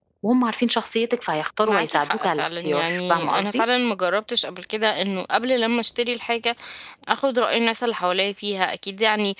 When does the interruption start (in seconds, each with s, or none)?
1.6 s